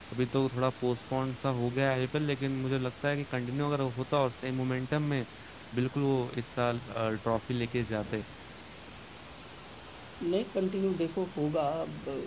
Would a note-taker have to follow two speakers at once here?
No

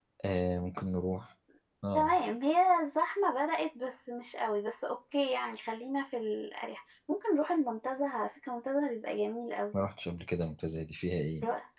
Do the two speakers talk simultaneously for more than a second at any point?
No

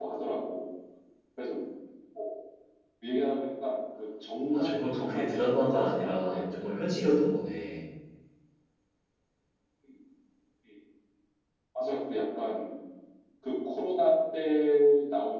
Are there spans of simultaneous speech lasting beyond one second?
Yes, from 4.5 s

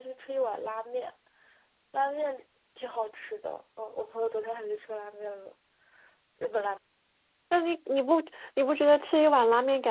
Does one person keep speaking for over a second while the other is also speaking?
No

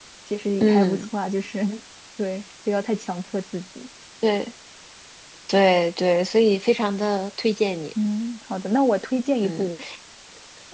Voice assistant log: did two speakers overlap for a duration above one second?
No

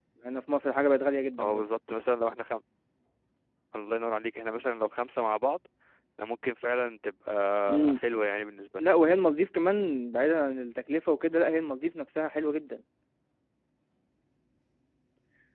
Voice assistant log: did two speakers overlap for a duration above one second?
No

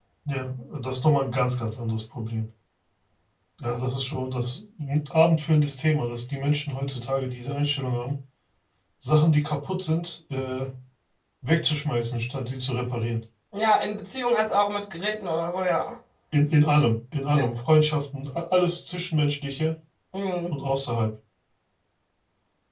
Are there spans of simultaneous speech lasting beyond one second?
No

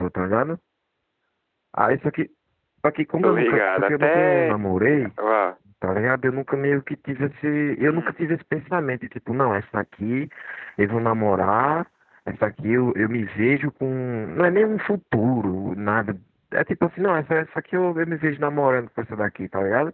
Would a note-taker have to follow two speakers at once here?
Yes, from 3.2 s

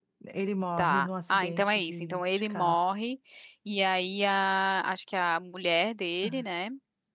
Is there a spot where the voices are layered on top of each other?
Yes, from 0.8 s

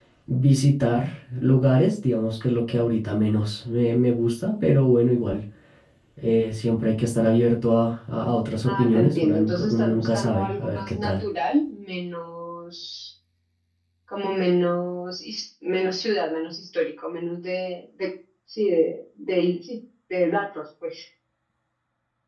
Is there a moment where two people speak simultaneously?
Yes, from 8.6 s

